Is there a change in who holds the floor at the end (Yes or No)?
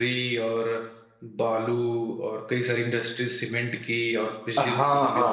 Yes